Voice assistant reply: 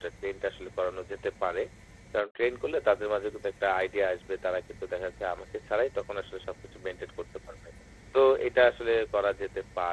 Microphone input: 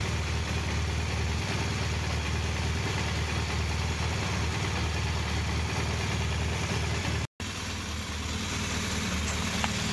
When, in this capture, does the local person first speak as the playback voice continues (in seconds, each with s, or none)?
none